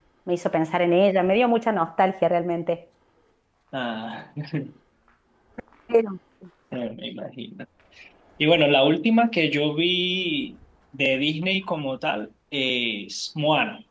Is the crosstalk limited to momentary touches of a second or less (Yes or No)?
Yes